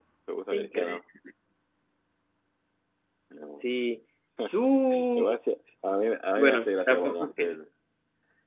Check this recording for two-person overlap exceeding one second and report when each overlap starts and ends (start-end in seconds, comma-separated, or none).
6.4-7.6